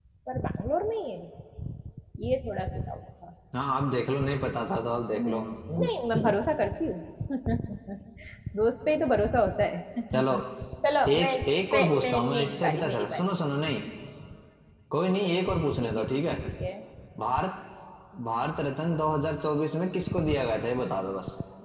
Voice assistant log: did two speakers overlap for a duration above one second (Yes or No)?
Yes